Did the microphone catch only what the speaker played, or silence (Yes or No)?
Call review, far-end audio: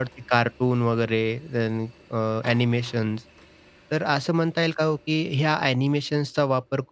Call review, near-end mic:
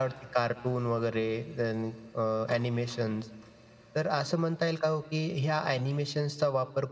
Yes